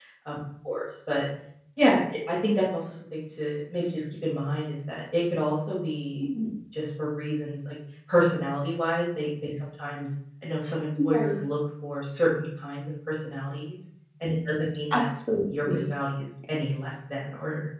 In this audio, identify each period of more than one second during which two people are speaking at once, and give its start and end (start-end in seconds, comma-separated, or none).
none